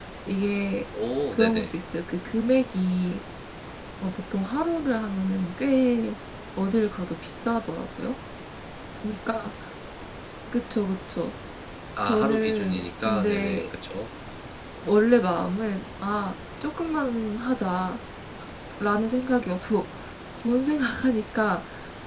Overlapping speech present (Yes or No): Yes